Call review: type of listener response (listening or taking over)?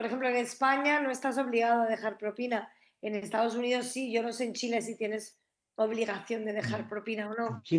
taking over